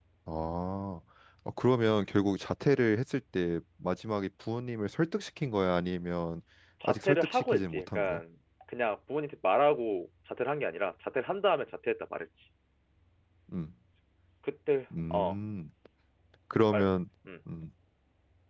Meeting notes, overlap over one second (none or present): present